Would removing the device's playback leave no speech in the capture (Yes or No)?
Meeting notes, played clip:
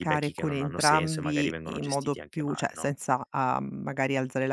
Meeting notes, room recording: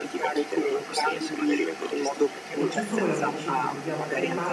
No